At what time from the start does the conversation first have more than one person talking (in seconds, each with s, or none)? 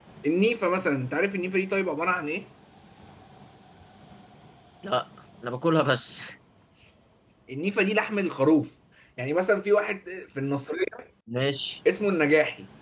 none